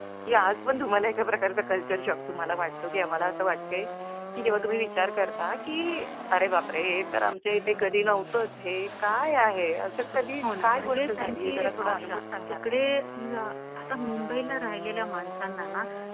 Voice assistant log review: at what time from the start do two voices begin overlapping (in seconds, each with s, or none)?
10.4 s